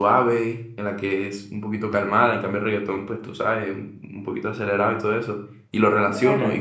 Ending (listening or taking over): listening